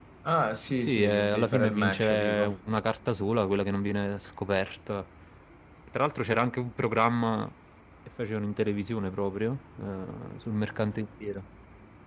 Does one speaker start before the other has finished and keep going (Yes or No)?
Yes